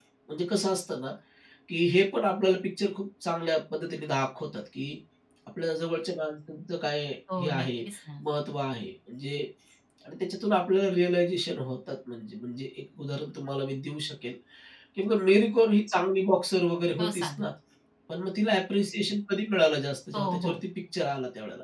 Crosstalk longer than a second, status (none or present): none